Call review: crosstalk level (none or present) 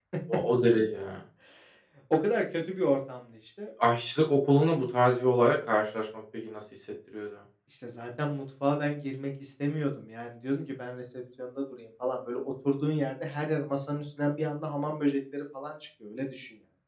none